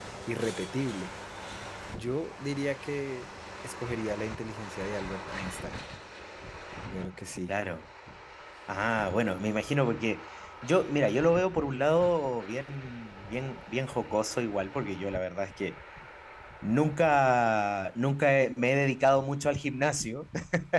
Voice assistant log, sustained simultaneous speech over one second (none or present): none